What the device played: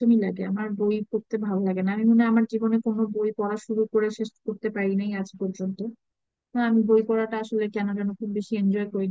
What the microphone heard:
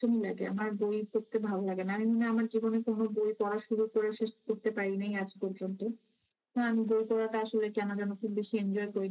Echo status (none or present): present